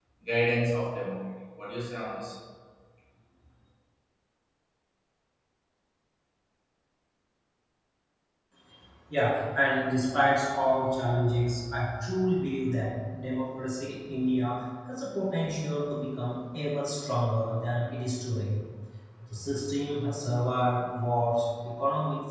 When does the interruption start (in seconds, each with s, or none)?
none